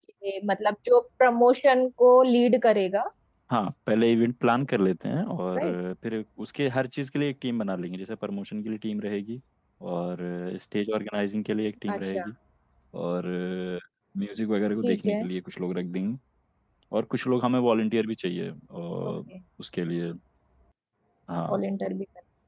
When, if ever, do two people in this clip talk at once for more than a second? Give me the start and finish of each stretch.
none

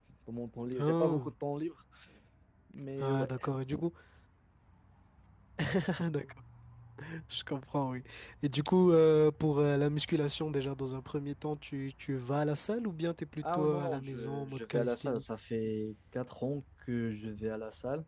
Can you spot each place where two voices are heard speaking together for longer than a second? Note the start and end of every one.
13.4-15.2

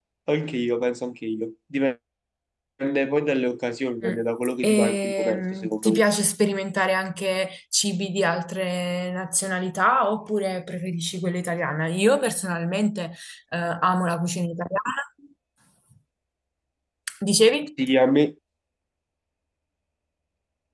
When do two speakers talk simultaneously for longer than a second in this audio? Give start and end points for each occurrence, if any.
4.6-6.0

